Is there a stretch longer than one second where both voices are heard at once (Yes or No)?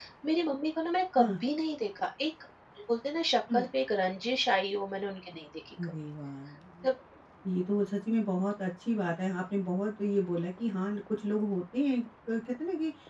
No